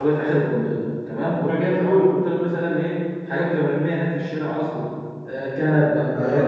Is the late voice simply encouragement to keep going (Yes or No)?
Yes